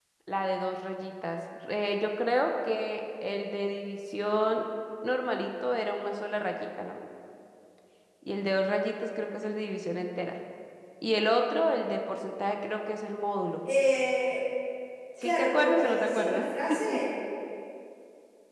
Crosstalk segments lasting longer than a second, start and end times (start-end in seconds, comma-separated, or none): 15.2-16.4